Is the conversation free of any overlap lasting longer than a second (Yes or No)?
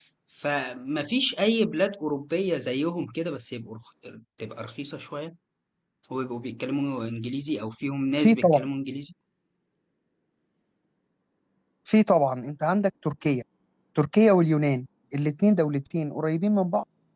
Yes